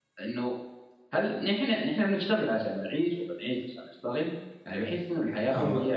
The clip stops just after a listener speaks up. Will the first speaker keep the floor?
Yes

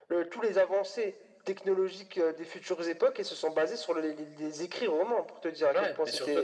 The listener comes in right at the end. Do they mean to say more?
Yes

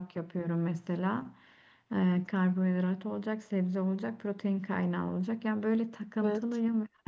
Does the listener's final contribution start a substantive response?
No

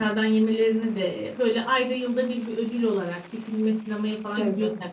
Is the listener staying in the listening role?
Yes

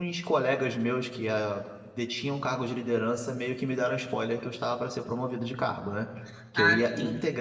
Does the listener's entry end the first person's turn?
No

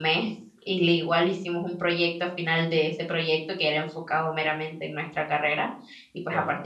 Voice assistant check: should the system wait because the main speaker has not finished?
Yes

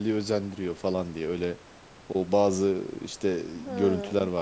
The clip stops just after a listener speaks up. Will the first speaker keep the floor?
Yes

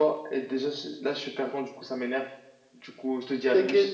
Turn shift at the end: Yes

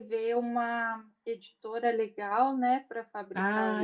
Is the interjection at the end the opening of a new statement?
Yes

